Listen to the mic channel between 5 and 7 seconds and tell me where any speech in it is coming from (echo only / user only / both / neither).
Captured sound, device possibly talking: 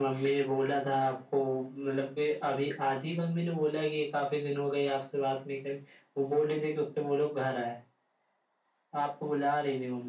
echo only